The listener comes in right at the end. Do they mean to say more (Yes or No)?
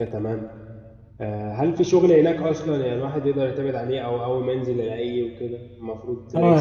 Yes